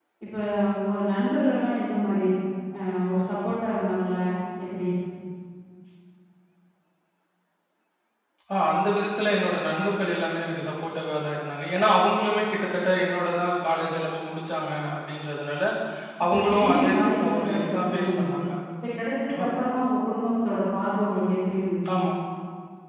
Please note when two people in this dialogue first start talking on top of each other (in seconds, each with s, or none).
16.3 s